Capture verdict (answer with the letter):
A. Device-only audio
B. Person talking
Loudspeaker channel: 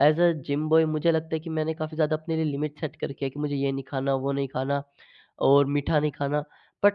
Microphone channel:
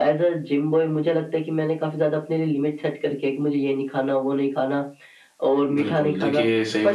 B